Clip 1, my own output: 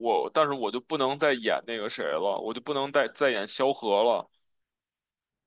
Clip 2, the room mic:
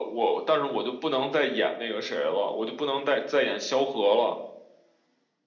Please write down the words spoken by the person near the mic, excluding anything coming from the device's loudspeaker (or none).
none